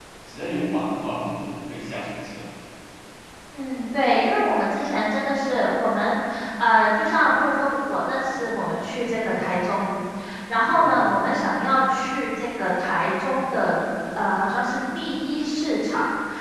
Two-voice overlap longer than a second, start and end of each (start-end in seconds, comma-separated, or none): none